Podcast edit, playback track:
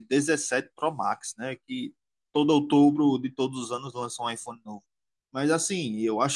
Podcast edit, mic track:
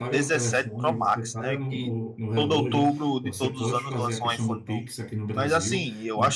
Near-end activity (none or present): present